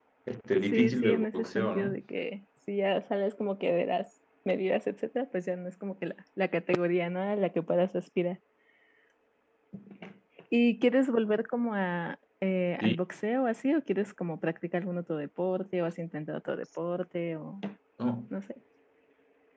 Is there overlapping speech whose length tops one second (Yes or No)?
Yes